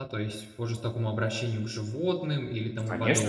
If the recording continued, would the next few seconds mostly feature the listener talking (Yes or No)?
Yes